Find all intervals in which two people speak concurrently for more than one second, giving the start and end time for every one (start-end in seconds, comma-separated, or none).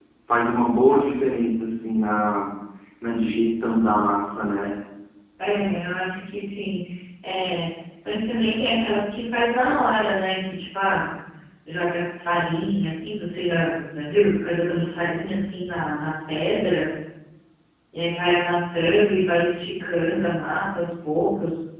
none